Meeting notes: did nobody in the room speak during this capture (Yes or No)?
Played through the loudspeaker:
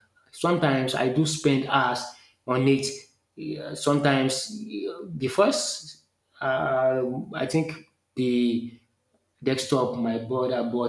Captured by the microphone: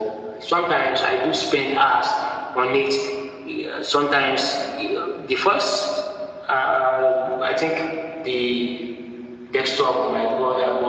Yes